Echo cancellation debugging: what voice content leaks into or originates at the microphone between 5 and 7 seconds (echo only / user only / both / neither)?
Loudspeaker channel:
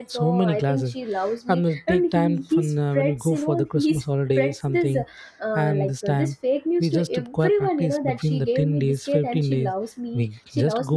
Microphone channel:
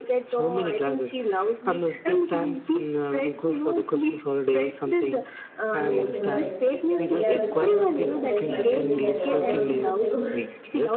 both